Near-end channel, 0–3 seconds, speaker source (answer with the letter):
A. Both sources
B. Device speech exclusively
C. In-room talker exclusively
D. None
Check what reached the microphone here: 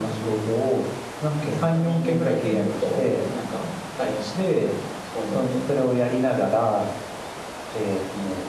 B